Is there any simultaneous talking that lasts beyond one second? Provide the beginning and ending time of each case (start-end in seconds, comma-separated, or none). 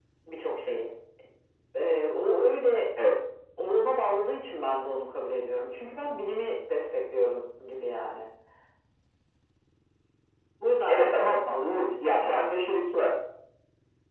10.9-12.4